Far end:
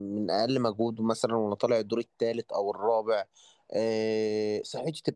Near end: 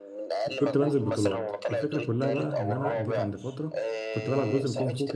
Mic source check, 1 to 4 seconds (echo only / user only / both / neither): both